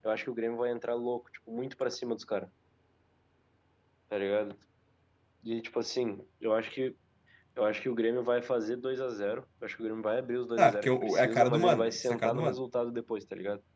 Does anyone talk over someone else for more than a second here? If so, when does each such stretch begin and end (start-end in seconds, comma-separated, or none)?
10.6-12.6